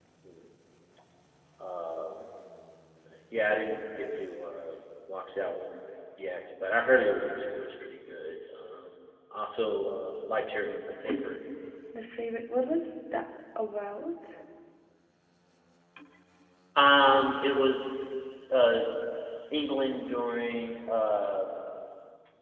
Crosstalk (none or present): none